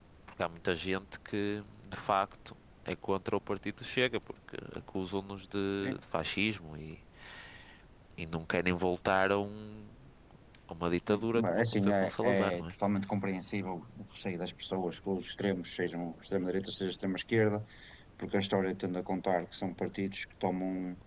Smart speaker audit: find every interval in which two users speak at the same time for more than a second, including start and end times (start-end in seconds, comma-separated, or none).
11.3-12.7